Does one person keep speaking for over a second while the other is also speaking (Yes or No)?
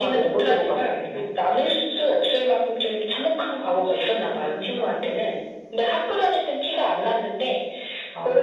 Yes